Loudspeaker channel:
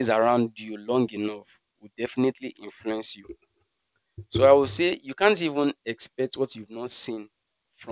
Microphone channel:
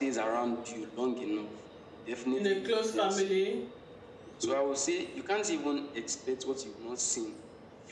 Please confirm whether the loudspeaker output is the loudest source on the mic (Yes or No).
No